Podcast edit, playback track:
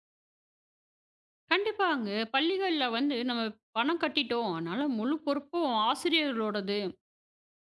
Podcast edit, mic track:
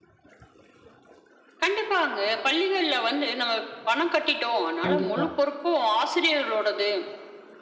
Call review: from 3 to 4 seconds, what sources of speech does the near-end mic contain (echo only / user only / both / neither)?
echo only